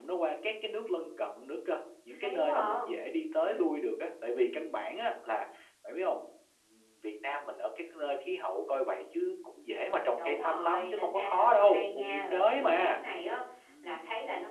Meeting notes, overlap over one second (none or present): present